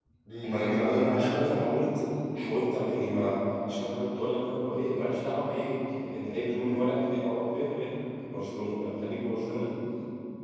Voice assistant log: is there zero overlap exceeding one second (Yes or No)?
No